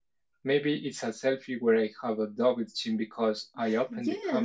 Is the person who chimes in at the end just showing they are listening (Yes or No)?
No